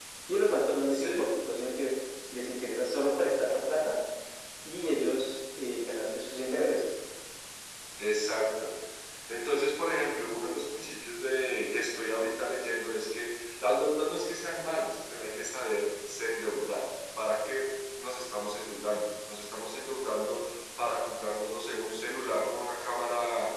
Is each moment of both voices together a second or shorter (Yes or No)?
Yes